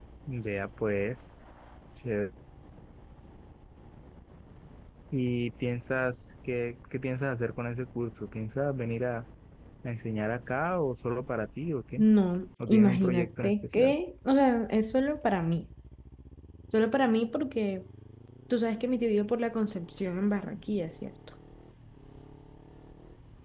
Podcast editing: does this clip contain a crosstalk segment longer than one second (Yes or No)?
Yes